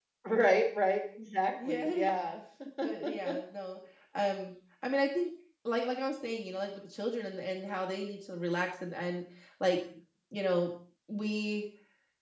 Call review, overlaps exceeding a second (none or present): none